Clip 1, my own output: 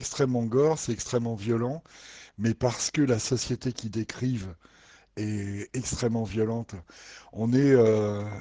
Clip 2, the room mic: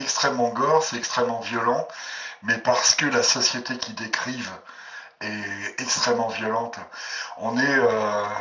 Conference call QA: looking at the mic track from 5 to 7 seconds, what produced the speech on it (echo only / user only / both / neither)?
echo only